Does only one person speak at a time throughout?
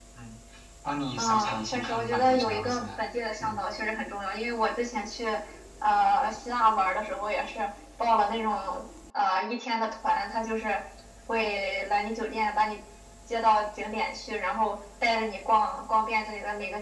No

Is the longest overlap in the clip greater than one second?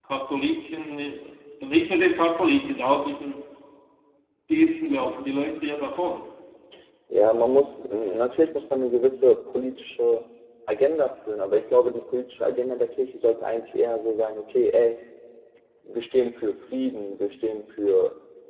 No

